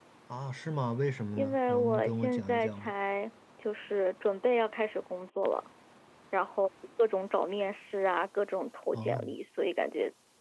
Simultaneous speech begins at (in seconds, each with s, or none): 1.4 s